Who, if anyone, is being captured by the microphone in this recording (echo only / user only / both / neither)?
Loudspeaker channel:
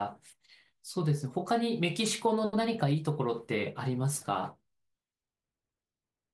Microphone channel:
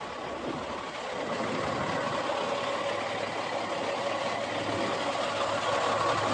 neither